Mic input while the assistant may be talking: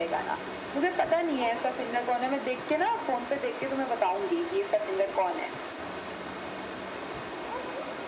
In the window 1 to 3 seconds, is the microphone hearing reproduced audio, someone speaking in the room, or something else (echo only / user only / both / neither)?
echo only